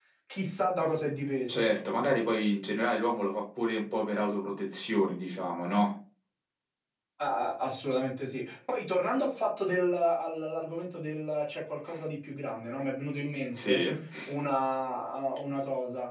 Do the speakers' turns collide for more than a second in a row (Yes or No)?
No